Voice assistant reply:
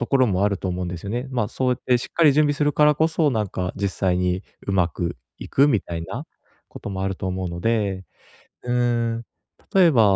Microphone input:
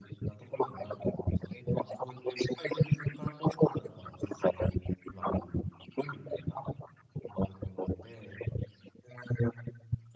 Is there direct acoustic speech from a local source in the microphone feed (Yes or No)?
No